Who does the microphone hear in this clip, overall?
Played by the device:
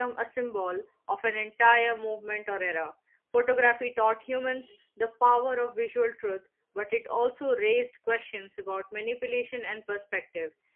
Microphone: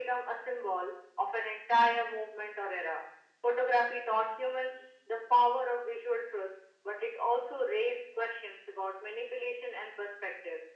echo only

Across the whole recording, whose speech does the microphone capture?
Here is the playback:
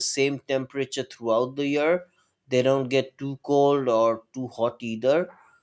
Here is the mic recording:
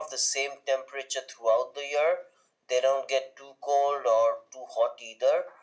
echo only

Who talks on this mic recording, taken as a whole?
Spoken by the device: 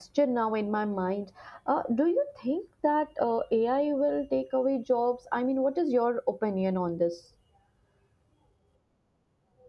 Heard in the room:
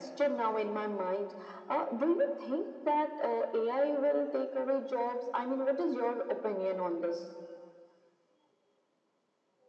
echo only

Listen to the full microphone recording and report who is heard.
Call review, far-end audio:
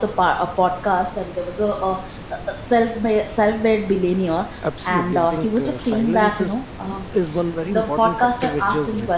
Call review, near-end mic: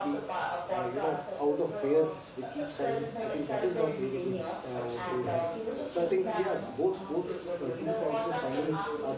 both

